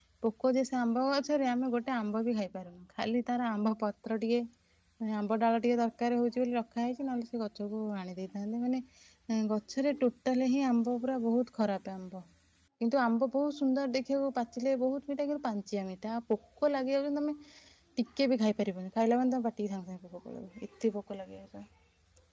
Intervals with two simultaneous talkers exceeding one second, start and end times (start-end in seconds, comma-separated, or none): none